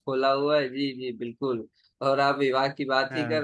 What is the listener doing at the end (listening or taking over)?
listening